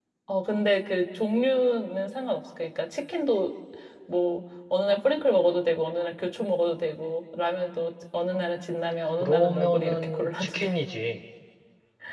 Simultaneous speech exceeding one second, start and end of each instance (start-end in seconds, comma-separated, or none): 9.2-10.7